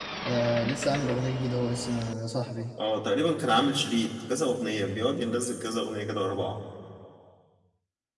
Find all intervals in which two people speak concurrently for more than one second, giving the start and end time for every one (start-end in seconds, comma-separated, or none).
none